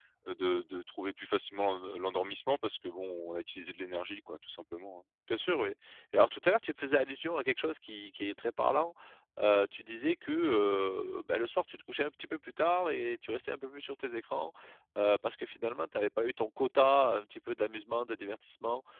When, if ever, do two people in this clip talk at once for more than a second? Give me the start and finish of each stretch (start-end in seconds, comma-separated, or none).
none